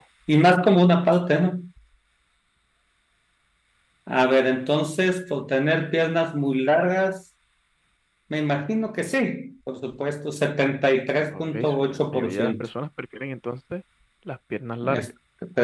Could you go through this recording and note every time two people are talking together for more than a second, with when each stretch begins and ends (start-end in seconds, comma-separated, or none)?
11.4-12.6